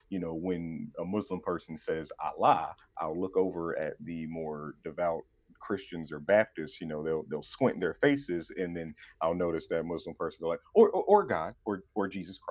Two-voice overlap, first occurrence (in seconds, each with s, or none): none